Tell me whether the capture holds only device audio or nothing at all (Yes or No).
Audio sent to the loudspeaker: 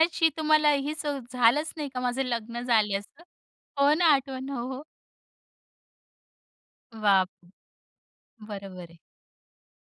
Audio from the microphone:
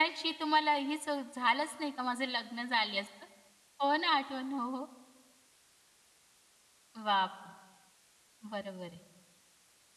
Yes